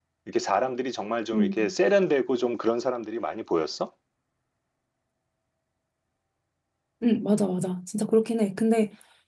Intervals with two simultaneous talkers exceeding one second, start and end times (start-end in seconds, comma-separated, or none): none